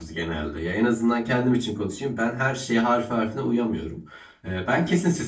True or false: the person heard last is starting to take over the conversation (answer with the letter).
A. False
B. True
A